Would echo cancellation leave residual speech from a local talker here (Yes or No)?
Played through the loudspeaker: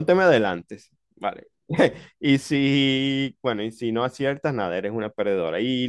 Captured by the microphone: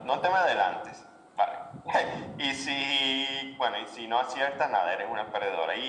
No